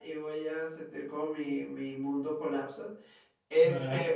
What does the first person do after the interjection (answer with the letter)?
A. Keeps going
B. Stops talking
A